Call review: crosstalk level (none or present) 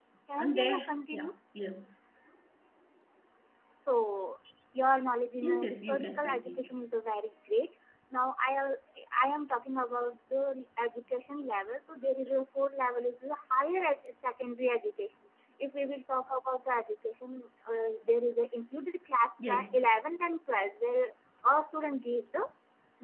present